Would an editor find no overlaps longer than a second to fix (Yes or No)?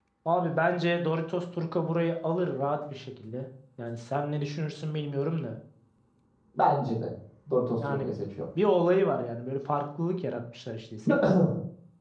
Yes